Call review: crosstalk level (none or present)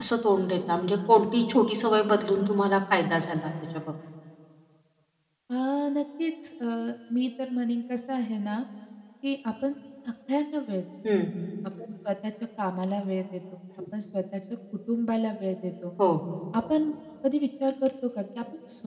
none